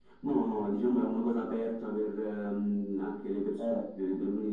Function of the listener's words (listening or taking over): listening